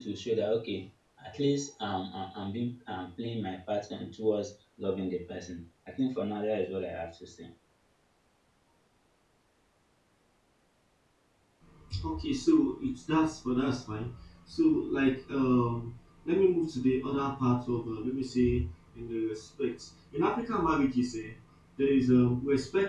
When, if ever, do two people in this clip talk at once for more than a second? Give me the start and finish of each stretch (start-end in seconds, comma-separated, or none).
none